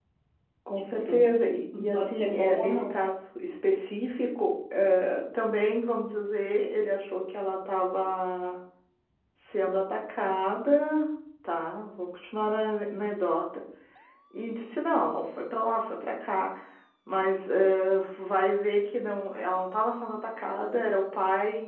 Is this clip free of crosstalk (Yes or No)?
No